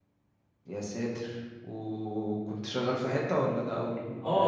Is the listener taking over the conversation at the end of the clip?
Yes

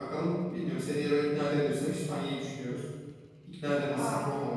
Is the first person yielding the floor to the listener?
No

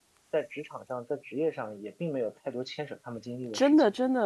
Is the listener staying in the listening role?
No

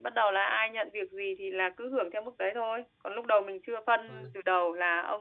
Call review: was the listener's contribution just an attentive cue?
Yes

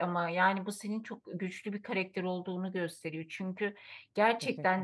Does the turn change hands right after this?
No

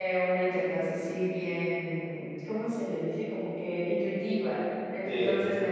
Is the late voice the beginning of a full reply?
No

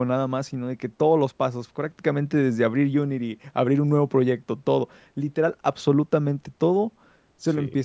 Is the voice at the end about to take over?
No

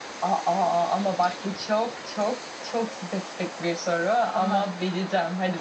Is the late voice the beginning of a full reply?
No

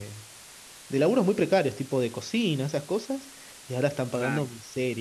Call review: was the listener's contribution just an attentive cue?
Yes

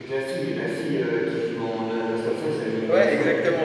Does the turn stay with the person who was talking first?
No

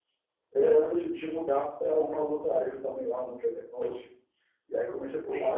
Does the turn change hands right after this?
No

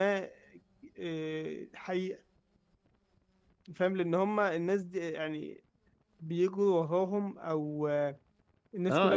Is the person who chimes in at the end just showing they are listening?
No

